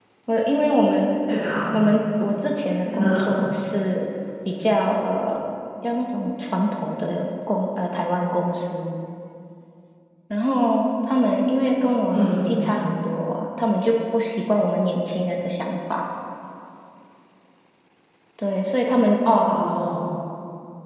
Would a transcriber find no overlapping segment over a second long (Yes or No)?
Yes